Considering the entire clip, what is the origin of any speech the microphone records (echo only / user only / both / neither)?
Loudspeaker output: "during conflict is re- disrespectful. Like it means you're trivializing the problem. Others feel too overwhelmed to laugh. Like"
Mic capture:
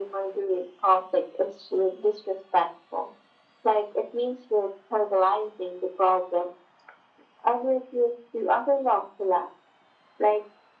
echo only